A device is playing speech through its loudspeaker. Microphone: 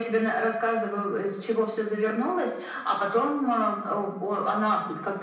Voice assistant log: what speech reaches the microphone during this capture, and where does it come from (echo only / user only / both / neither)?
echo only